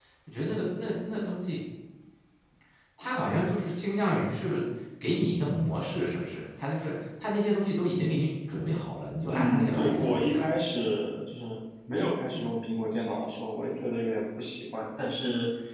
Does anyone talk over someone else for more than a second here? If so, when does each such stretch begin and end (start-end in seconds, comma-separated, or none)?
9.3-10.5